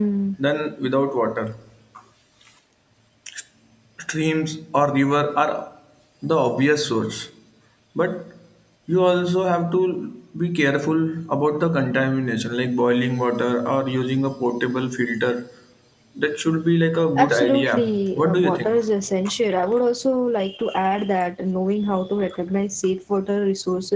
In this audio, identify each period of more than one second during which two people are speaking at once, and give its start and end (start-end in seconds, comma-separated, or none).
17.2-18.8